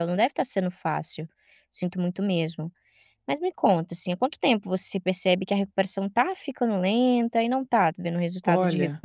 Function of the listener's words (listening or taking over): taking over